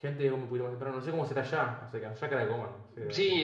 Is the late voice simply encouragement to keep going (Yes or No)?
No